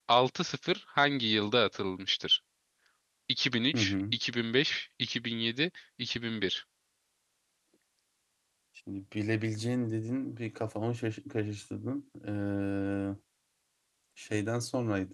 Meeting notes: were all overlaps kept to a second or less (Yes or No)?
Yes